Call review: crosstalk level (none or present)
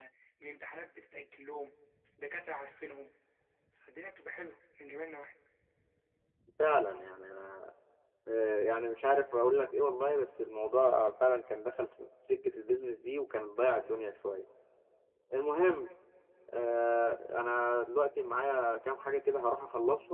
none